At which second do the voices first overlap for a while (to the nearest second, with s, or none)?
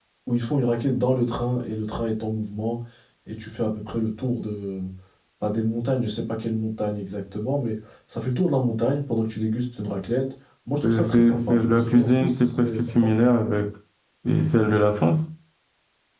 11 s